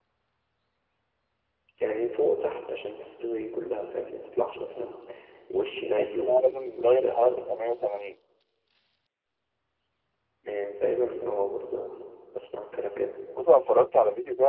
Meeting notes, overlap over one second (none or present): present